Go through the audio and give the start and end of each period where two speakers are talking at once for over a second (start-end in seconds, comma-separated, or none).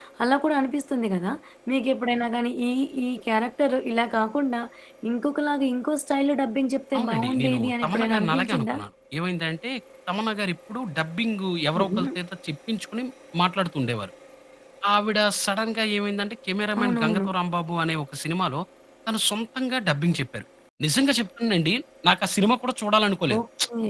7.0-8.8